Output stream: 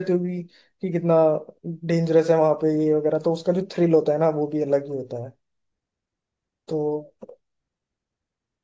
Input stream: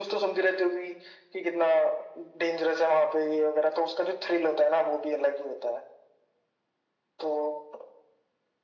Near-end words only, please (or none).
none